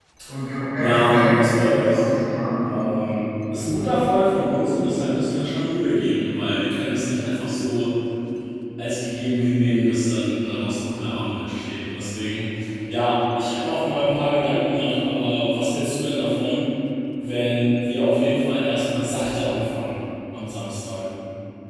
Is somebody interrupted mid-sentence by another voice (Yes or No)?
Yes